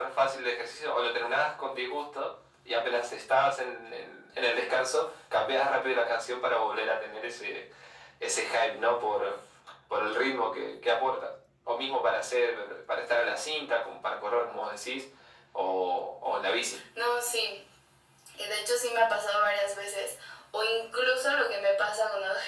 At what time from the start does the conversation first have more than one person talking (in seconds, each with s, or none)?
none